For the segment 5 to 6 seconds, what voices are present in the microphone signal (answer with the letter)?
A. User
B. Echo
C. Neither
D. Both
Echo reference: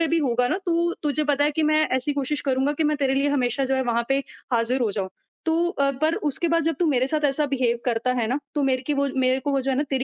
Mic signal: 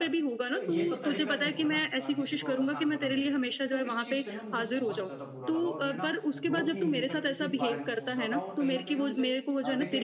D